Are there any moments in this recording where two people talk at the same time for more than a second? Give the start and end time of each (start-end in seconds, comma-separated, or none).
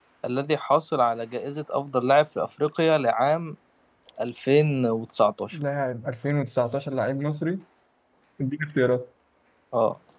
none